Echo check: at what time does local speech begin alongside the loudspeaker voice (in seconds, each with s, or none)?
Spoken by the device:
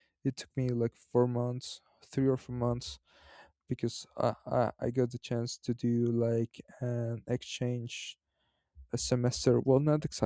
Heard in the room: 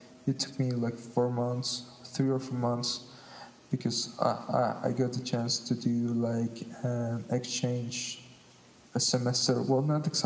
none